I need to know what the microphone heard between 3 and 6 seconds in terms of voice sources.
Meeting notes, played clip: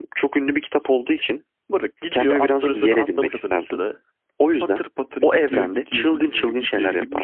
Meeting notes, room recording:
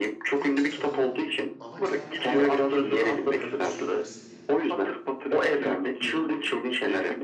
both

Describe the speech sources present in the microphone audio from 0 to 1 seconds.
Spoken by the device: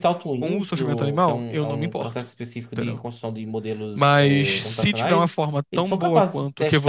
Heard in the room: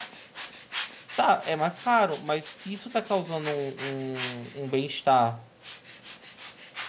neither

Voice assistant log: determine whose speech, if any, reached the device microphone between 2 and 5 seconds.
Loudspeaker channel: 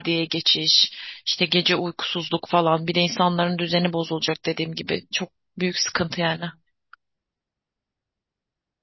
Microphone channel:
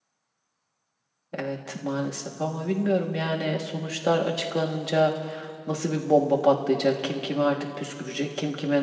user only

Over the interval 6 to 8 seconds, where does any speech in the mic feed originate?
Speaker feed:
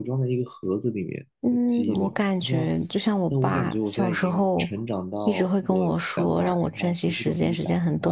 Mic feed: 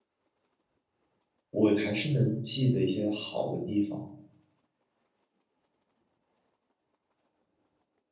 neither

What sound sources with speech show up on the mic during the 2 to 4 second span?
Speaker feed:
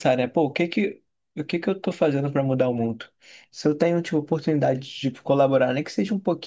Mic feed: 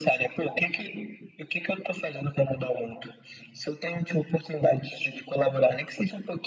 echo only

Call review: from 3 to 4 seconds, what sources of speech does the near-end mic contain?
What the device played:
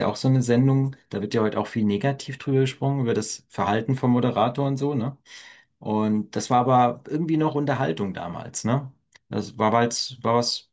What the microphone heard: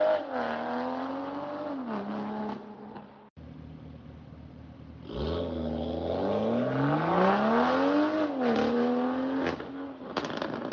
neither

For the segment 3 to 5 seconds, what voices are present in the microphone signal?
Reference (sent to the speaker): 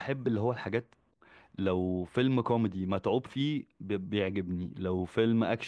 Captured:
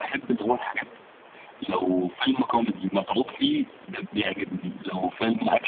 echo only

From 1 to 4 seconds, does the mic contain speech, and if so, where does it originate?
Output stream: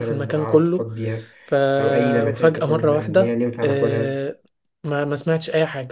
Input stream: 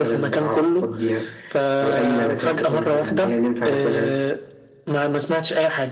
echo only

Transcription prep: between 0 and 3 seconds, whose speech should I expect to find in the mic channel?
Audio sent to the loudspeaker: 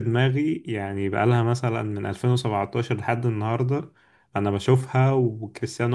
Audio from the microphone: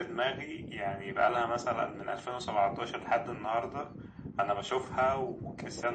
echo only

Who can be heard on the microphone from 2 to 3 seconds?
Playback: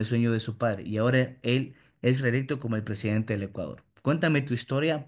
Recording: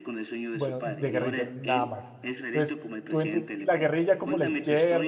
both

